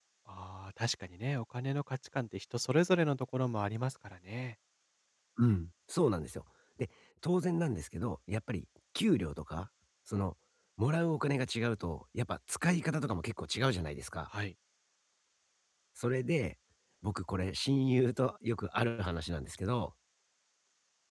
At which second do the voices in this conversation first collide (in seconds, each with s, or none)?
none